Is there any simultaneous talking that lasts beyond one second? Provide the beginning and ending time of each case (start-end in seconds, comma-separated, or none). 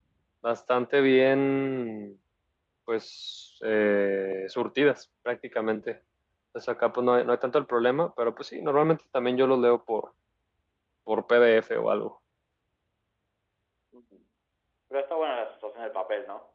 none